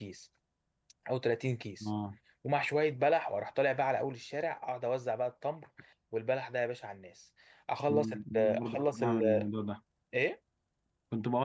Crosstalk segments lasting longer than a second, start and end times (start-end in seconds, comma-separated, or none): 7.9-9.5